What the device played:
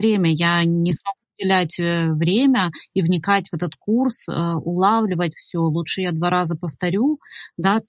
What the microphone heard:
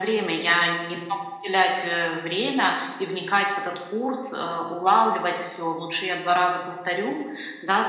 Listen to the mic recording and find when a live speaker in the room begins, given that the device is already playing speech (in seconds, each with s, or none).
none